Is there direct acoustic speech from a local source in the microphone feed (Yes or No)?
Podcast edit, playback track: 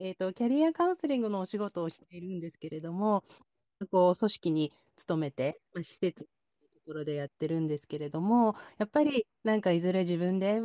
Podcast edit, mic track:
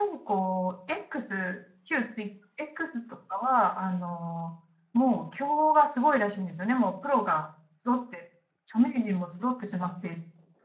Yes